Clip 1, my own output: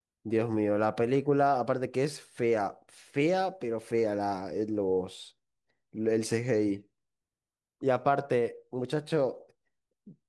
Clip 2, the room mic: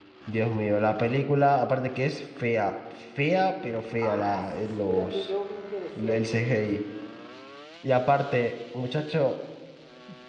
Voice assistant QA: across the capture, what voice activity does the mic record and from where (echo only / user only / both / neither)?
both